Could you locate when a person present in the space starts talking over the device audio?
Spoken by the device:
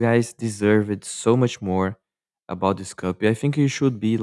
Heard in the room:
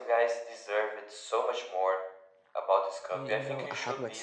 3.1 s

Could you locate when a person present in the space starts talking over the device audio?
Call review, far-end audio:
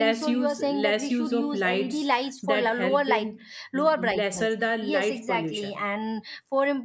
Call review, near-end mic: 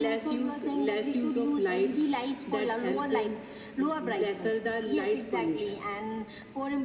none

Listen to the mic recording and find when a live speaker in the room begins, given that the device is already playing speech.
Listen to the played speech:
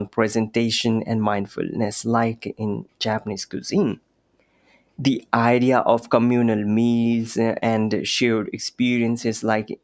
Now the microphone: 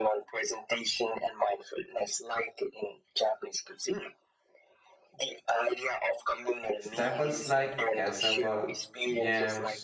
6.8 s

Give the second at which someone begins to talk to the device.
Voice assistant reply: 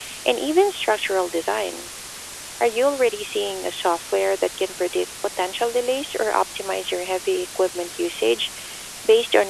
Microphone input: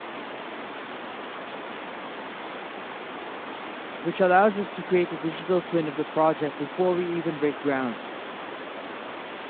4.0 s

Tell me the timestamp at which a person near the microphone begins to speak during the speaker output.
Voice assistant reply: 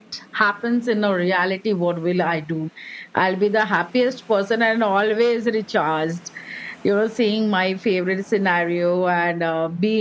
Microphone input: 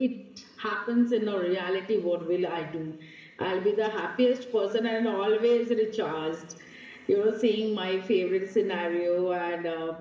none

